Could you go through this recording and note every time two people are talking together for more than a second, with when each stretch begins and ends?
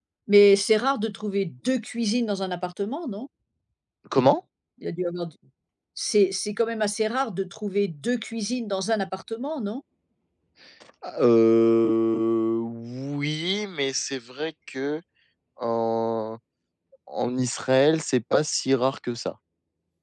none

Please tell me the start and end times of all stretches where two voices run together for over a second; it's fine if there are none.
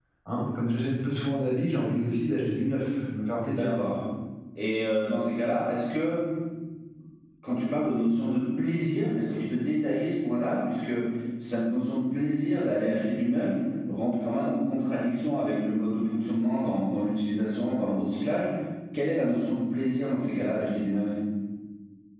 none

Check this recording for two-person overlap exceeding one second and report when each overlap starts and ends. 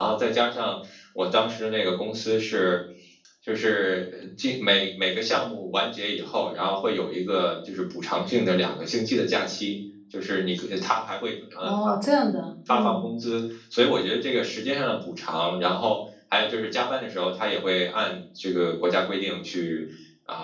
none

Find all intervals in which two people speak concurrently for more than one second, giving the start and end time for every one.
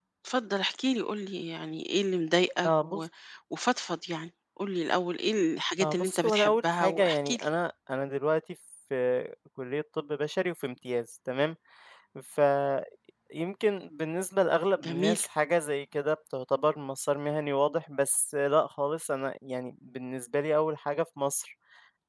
5.8-7.4

